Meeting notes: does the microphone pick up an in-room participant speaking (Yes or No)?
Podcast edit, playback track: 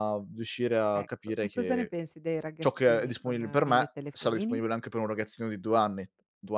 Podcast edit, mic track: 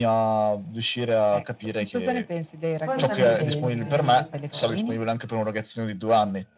Yes